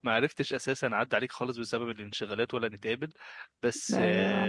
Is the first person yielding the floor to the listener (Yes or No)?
No